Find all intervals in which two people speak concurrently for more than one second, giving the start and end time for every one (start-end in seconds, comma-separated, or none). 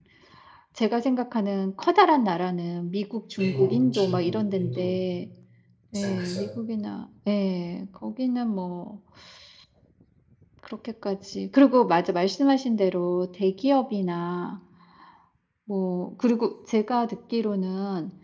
3.4-4.9